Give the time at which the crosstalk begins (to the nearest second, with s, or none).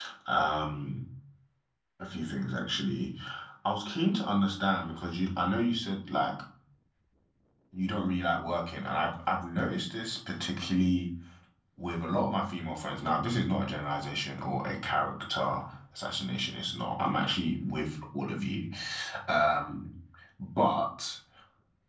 none